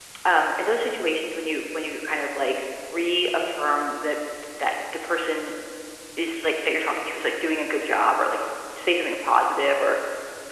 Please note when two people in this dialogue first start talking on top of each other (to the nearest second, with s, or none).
none